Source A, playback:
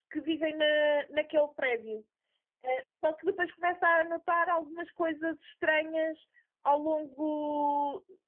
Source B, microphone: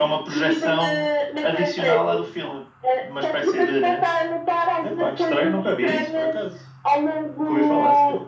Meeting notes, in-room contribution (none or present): present